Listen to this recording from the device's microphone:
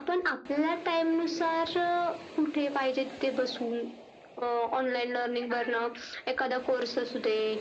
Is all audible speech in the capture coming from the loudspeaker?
Yes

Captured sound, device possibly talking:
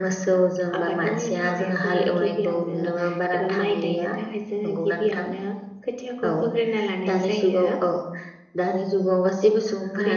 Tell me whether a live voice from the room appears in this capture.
No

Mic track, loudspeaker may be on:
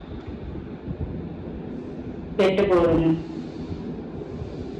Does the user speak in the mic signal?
Yes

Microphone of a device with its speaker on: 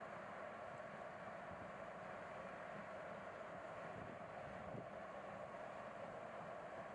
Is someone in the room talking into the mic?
No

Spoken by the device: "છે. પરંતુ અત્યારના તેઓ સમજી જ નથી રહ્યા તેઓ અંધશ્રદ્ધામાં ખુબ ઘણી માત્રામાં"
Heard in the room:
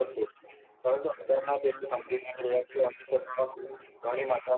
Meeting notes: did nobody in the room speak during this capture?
Yes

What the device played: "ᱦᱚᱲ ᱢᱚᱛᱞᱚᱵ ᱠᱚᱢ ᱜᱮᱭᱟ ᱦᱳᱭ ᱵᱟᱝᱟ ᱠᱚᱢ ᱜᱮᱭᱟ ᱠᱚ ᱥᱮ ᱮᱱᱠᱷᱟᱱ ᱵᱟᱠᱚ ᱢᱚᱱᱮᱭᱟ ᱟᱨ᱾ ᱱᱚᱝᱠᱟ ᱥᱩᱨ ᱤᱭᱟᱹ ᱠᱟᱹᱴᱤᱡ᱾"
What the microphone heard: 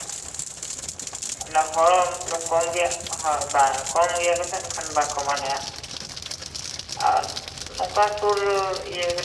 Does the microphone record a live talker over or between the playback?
No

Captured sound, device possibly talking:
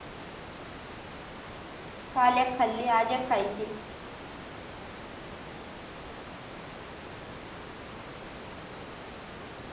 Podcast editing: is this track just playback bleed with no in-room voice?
No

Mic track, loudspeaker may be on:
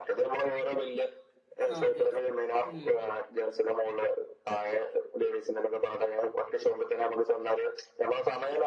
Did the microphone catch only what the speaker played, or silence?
No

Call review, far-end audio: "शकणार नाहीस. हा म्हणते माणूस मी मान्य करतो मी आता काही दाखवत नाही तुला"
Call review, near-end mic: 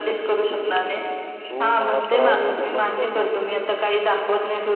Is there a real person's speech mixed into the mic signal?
Yes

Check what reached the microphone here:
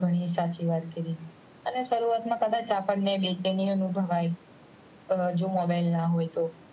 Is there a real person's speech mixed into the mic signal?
No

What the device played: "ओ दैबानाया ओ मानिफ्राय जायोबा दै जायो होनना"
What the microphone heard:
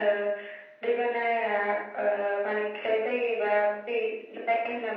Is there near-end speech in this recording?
No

